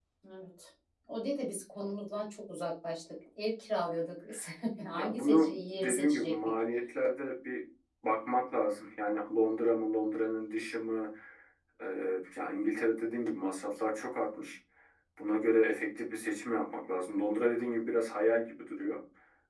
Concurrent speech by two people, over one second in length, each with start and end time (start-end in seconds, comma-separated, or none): 4.9-6.3